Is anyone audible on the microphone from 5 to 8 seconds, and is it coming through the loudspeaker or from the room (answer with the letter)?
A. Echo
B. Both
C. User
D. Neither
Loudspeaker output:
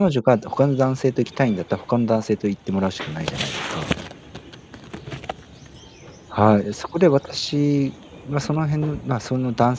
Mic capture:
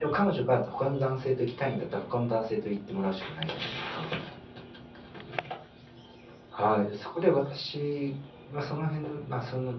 A